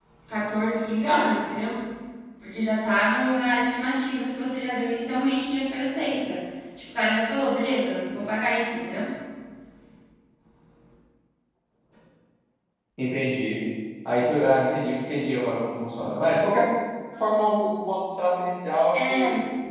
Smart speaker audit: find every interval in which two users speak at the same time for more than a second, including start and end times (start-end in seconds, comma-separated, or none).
none